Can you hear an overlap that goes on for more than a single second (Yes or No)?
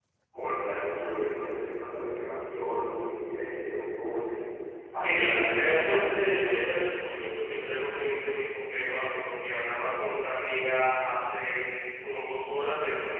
Yes